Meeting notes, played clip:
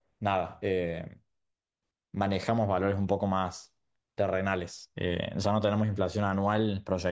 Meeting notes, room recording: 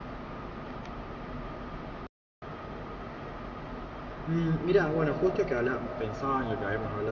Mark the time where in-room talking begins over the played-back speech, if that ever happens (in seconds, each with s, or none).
4.2 s